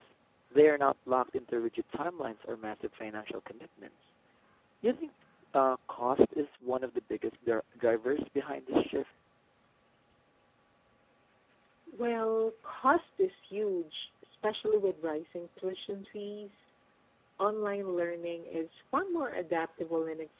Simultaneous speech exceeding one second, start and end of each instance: none

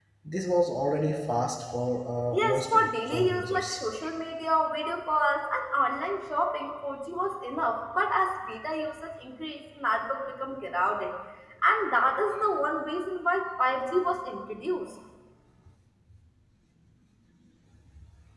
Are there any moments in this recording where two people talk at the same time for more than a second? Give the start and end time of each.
2.3-3.8

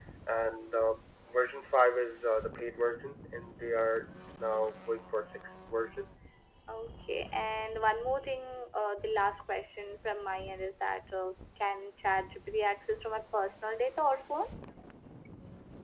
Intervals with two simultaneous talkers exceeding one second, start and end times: none

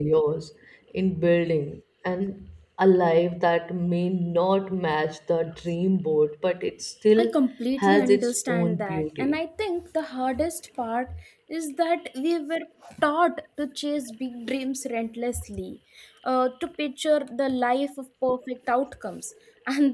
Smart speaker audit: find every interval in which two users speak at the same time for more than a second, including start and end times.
7.8-9.3

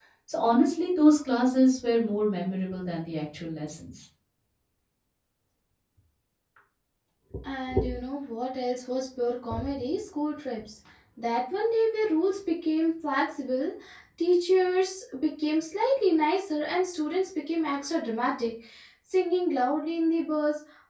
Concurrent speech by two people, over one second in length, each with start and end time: none

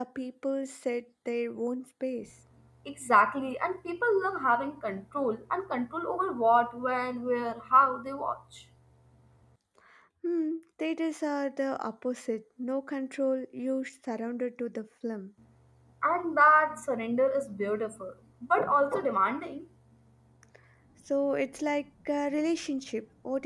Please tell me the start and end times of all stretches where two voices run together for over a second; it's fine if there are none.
none

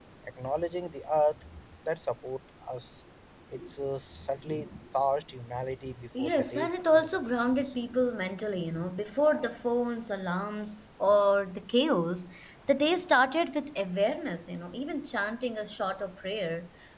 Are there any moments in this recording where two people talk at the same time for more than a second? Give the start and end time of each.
6.2-7.8

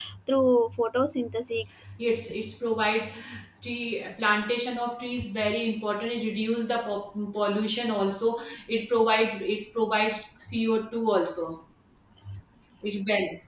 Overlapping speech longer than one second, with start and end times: none

